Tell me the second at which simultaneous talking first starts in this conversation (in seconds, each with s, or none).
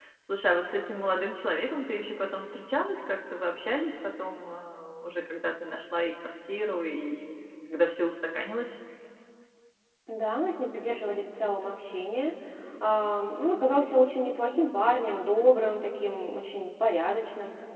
none